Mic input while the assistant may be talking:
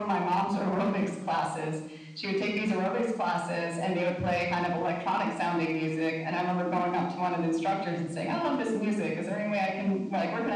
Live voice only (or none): none